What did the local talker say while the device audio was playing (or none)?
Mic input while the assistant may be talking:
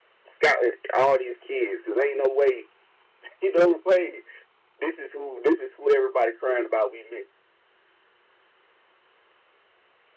none